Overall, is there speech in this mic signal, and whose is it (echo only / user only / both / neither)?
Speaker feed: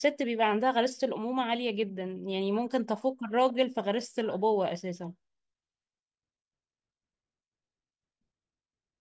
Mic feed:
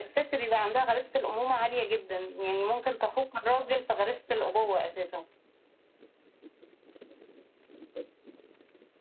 echo only